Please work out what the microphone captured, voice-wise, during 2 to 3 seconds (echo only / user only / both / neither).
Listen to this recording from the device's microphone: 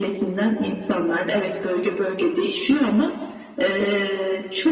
echo only